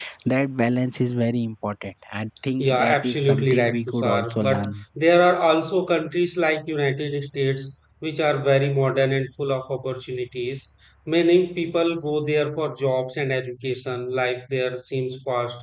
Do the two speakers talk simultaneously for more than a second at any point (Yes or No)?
Yes